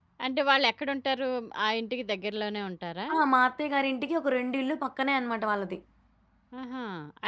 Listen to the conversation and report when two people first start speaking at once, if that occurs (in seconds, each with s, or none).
none